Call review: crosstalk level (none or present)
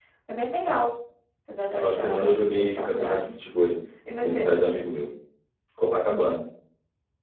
present